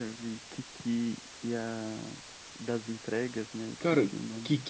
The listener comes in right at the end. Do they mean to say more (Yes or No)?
Yes